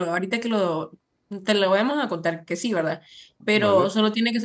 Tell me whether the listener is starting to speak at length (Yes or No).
No